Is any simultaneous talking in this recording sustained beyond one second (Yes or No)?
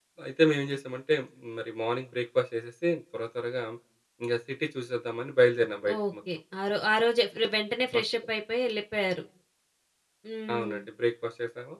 No